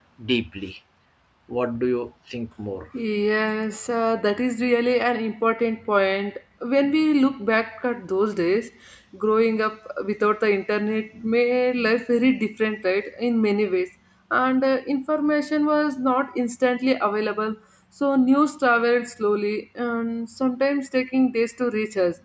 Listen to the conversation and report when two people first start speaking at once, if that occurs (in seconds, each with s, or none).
none